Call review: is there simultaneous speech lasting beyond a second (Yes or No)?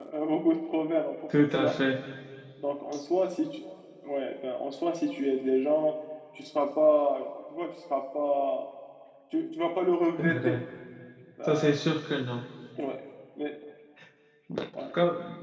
No